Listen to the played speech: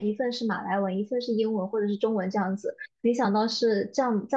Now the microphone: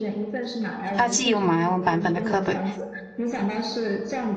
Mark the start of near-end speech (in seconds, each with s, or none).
1.0 s